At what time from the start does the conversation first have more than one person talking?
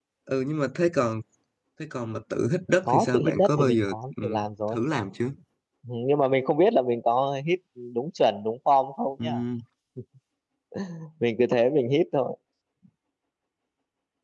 2.9 s

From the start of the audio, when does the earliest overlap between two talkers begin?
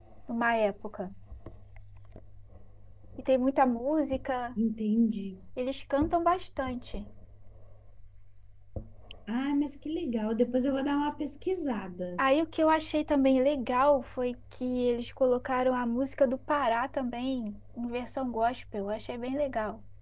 none

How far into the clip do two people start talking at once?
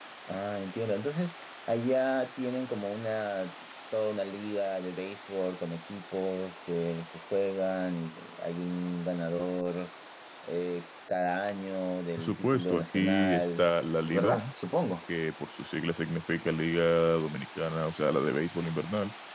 12.2 s

